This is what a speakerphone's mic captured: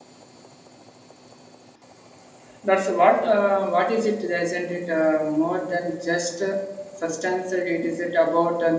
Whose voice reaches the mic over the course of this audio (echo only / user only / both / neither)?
user only